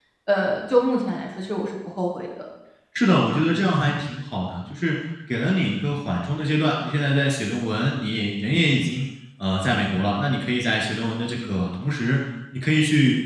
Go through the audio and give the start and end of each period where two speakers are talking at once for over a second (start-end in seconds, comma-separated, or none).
none